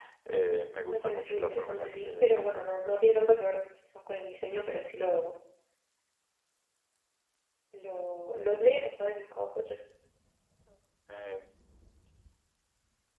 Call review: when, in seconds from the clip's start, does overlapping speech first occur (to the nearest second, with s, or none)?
1 s